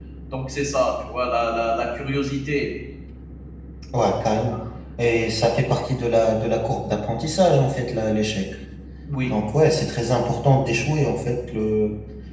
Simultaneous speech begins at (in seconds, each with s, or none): none